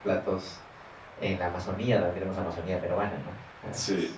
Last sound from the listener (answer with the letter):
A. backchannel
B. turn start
A